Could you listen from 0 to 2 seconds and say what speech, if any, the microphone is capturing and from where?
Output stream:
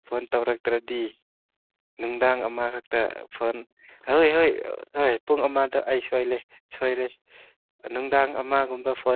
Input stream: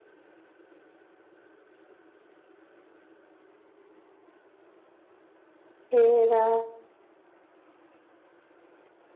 neither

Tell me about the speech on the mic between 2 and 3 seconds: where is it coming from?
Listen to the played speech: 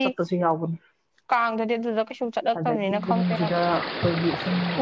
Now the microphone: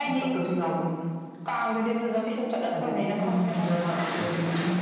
echo only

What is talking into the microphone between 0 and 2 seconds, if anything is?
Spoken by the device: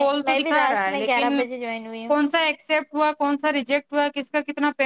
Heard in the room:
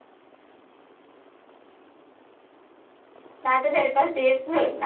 neither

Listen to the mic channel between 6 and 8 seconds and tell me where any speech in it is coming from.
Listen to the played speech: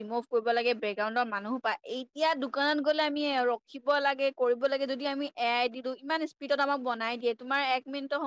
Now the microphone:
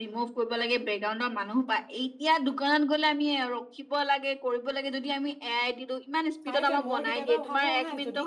both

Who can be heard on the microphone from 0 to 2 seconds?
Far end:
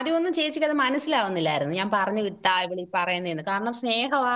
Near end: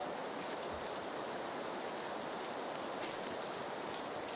neither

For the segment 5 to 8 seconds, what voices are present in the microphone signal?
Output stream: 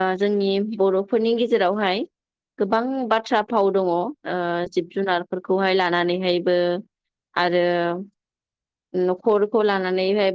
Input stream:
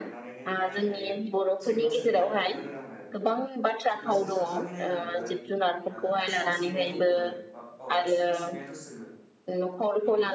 both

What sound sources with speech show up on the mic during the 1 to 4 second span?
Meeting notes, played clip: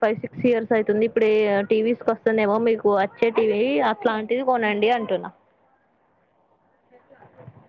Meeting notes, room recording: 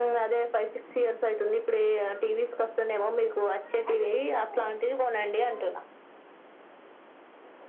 echo only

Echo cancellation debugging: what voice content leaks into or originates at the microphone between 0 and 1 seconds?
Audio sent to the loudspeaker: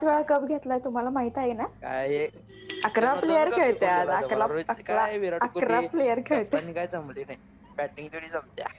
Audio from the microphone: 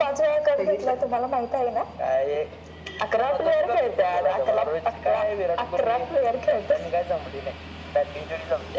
both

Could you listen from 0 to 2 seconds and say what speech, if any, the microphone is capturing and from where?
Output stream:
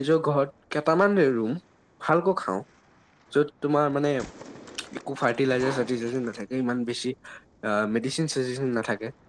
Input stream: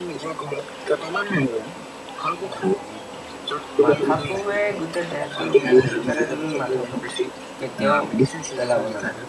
echo only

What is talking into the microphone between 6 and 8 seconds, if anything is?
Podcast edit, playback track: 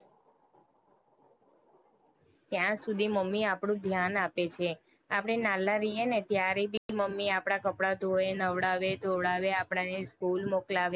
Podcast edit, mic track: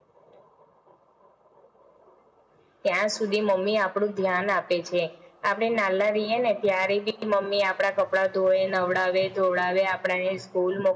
echo only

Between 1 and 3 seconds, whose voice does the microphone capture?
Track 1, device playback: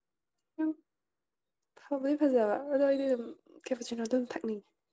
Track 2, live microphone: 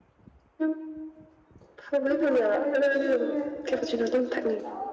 both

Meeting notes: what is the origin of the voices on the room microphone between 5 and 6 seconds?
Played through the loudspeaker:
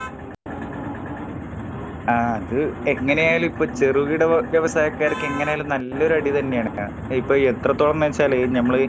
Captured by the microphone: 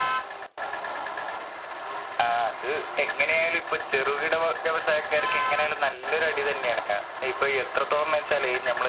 echo only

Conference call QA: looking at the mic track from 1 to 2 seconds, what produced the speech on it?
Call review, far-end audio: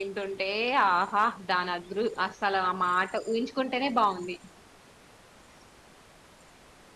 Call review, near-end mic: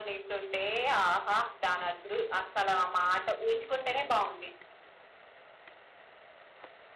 echo only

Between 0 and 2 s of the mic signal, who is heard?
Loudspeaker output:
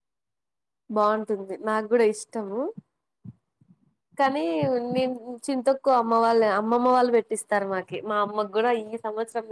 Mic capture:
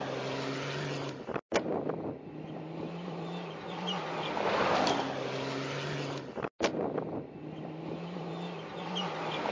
neither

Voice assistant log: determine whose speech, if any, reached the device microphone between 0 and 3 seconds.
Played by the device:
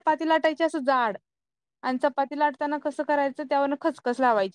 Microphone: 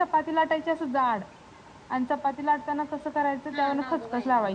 echo only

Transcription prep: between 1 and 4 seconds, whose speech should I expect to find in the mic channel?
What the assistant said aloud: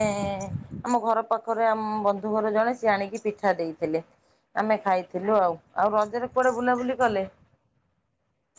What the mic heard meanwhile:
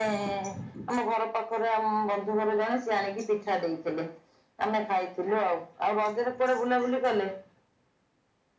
echo only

